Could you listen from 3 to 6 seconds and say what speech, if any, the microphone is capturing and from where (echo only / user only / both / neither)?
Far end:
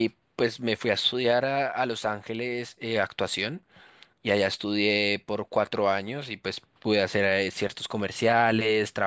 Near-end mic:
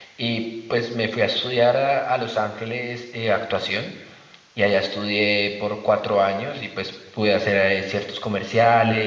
echo only